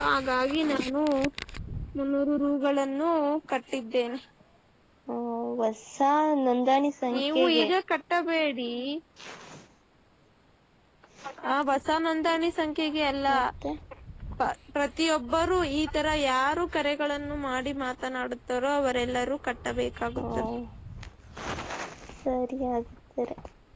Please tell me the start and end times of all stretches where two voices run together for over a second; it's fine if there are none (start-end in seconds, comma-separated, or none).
none